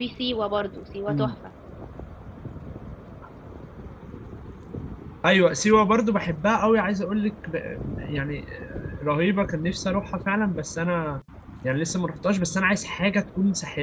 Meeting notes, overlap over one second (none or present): none